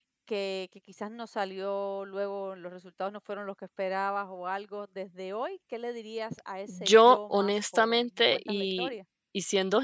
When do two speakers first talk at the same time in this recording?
6.7 s

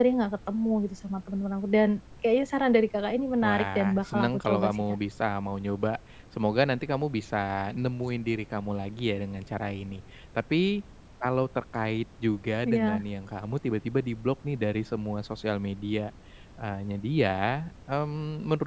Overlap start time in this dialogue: 3.4 s

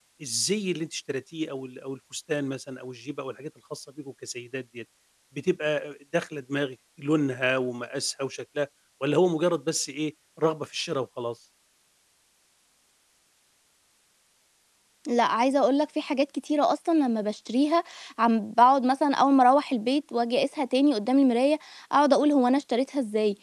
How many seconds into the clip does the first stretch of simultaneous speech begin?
none

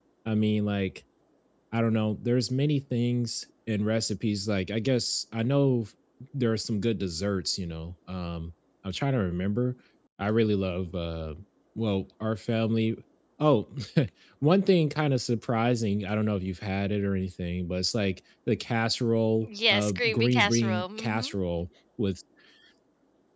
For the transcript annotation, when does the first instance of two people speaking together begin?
19.5 s

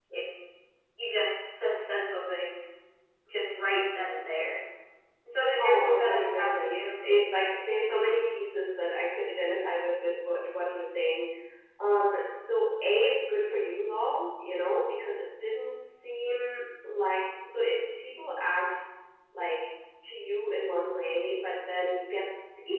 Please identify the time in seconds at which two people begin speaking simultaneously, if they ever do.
5.6 s

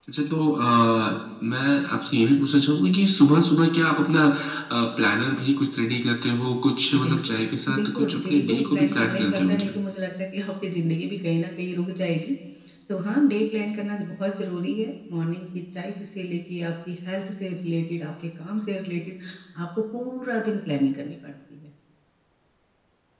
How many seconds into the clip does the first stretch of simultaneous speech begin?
6.9 s

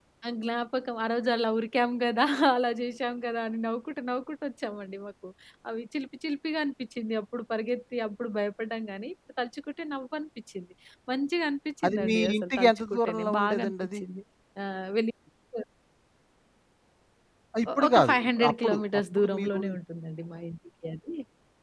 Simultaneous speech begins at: 11.8 s

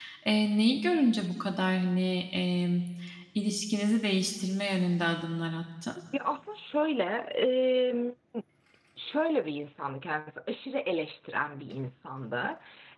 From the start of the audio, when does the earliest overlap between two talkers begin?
none

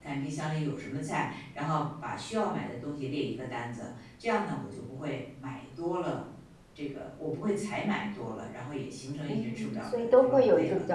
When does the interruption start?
9.3 s

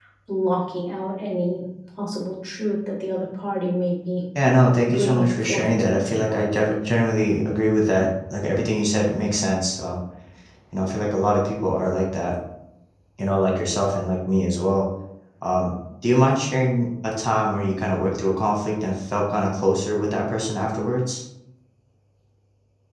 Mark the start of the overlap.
4.8 s

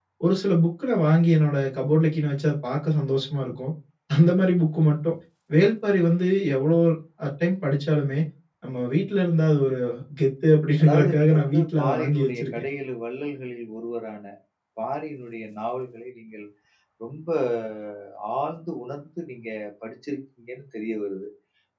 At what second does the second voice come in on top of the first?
10.8 s

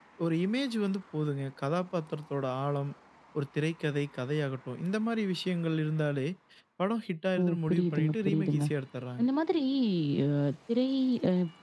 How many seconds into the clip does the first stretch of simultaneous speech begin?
7.4 s

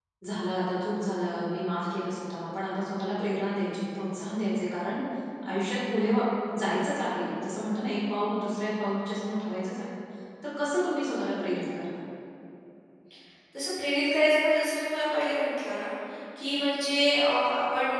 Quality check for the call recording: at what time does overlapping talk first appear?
none

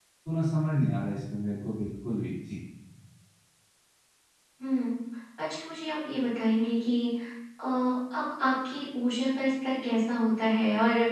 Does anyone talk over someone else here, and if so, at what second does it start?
none

